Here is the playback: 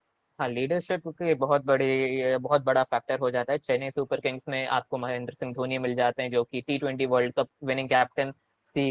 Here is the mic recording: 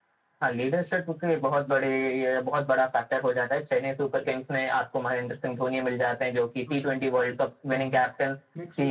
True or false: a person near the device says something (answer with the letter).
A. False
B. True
B